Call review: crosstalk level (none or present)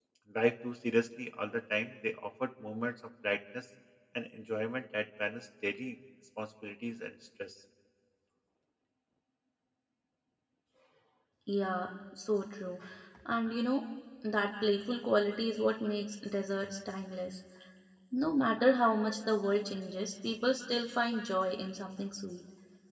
none